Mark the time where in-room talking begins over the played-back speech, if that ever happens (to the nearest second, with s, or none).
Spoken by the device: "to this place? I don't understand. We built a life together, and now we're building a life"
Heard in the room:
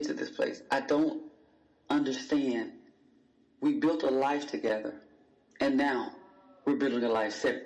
none